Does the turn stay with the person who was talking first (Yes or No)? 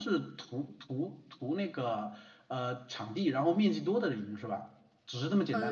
No